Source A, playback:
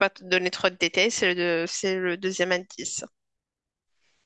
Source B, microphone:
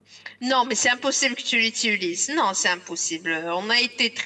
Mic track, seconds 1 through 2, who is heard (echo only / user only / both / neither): user only